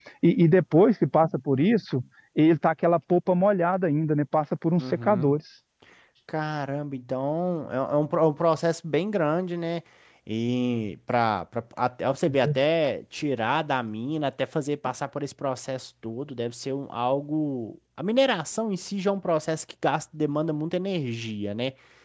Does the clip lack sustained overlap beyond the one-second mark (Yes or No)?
Yes